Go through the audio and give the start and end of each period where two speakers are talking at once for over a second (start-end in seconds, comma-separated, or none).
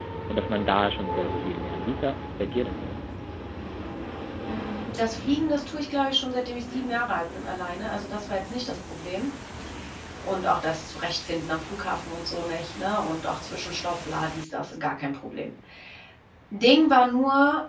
none